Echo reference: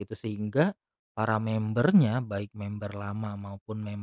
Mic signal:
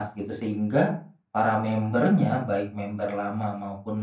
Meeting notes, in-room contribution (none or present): none